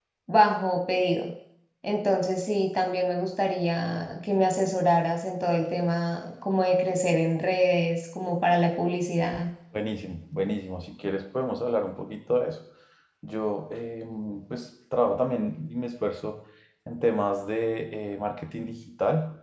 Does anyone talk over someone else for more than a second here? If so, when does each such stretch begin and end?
none

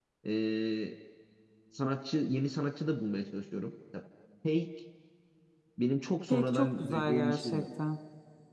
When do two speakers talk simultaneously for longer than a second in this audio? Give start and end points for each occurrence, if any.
6.3-7.7

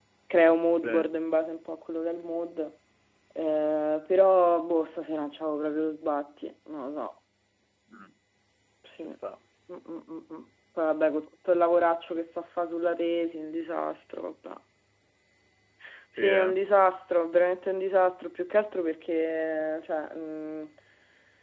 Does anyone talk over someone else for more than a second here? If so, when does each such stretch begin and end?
none

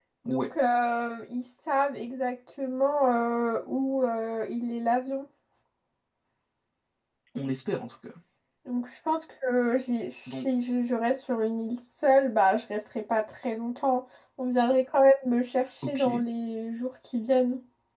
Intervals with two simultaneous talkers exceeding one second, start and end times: none

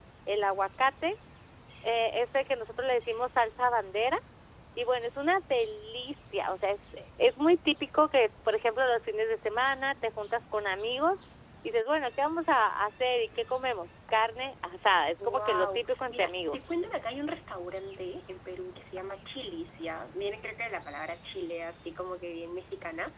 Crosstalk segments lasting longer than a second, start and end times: 15.2-16.6

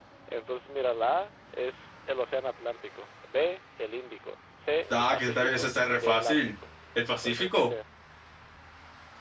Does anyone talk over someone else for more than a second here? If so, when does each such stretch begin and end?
4.9-6.4

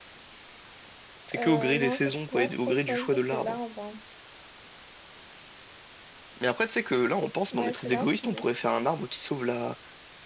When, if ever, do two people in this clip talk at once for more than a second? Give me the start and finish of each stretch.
1.3-3.6, 7.5-8.9

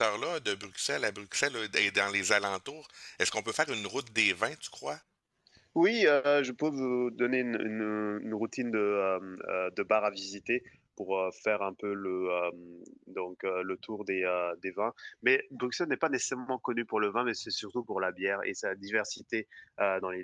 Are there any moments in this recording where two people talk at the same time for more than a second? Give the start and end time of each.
none

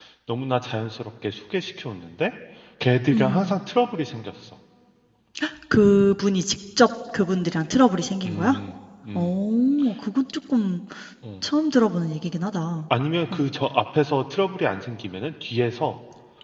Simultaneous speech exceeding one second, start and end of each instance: none

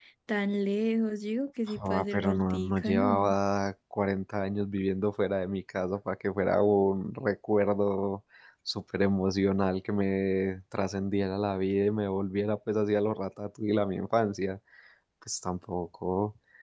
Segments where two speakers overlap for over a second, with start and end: 1.8-3.3

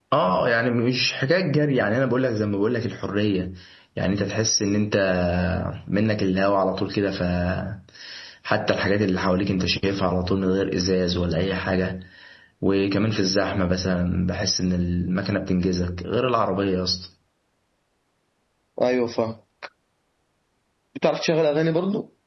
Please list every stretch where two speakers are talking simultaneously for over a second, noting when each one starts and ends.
none

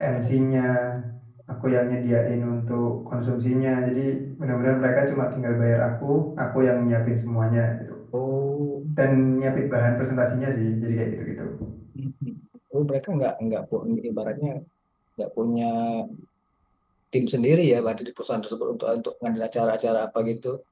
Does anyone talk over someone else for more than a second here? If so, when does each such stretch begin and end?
none

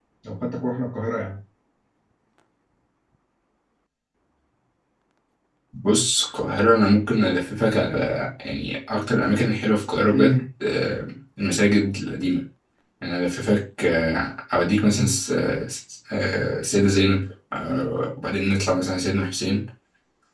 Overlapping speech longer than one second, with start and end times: none

